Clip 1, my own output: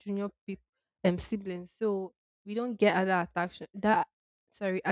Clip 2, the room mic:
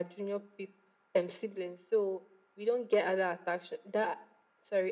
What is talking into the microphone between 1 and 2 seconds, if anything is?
echo only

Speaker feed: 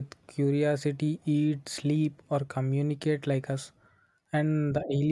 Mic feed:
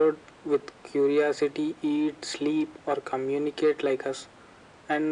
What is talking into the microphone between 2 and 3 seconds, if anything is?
echo only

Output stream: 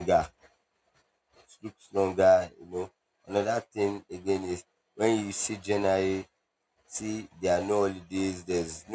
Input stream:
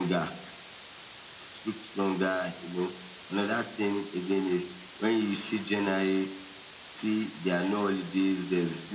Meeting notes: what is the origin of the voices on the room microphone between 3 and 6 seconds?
echo only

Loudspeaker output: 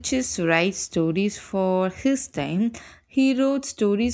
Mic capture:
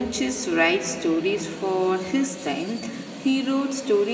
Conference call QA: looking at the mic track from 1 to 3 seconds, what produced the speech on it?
echo only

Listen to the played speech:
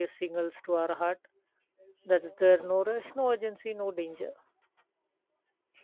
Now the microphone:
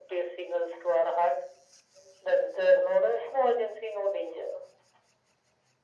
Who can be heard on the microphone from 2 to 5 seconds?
echo only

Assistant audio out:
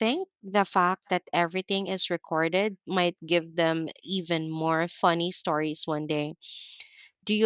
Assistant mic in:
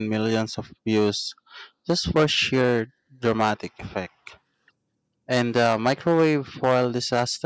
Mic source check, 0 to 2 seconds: user only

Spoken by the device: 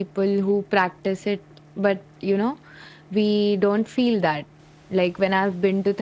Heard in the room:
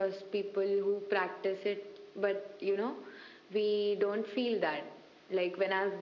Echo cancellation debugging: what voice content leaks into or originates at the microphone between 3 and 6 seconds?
echo only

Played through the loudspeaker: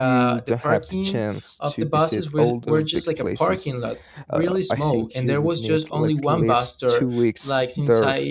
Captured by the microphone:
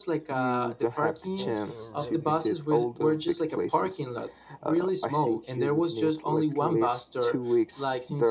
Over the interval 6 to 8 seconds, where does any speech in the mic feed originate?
echo only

